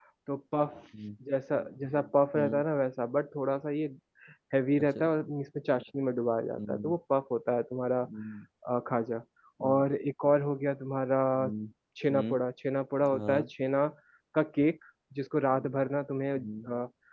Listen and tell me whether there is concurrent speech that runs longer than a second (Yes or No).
No